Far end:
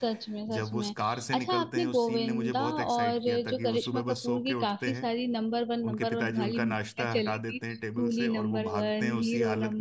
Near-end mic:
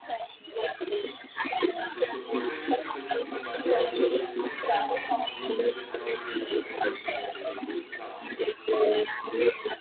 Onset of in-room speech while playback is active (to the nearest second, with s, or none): 1 s